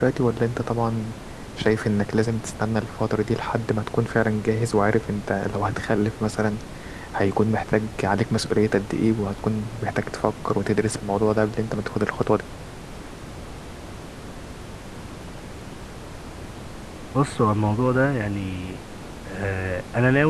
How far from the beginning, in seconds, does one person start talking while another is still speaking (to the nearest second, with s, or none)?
none